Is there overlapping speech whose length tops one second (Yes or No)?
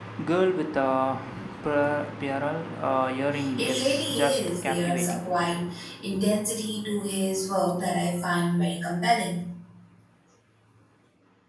Yes